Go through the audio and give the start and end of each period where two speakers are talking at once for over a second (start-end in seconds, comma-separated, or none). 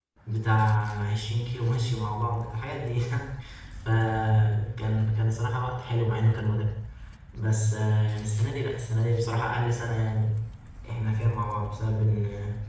none